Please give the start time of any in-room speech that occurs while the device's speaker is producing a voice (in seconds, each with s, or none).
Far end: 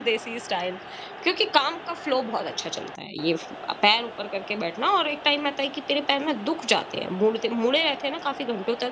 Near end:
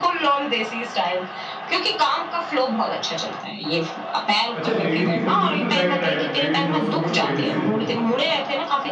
4.6 s